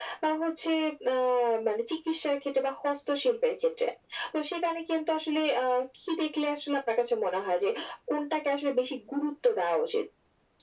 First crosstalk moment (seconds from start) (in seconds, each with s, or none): none